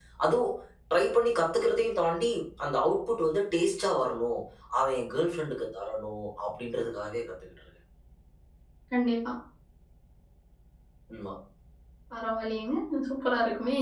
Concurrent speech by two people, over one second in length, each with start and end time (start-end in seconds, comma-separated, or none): none